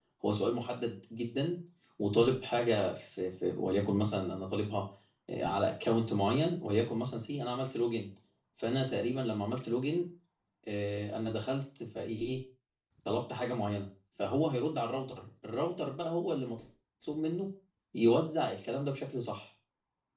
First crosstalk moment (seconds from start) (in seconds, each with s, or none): none